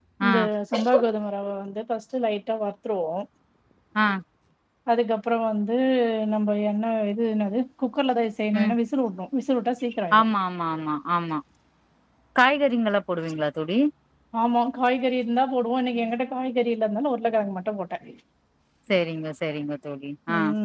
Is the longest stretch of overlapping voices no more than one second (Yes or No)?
Yes